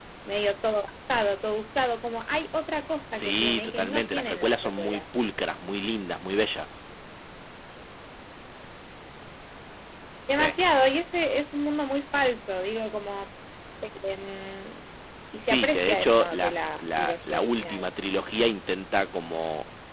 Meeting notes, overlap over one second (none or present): present